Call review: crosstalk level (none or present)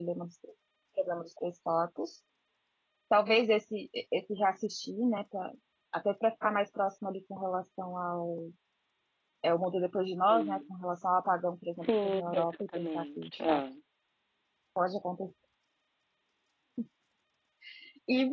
present